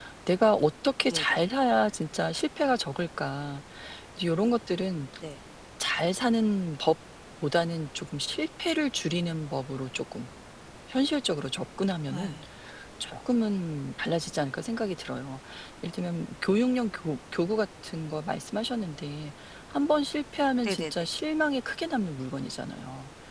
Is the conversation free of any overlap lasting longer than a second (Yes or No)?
Yes